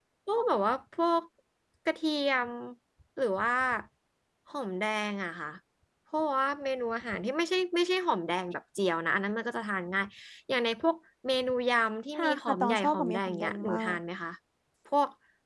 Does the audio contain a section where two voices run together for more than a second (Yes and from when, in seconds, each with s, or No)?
Yes, from 12.2 s